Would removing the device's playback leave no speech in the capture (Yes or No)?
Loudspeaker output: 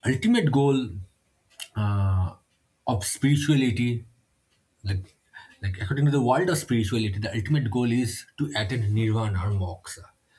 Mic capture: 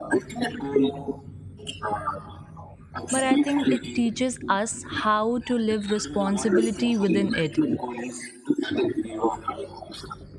No